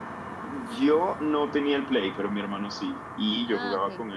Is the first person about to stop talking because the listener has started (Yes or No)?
No